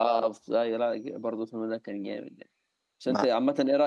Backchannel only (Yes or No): Yes